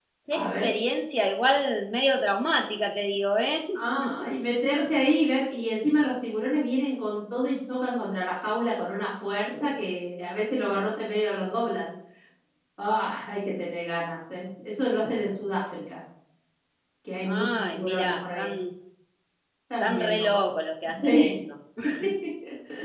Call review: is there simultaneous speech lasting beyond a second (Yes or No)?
Yes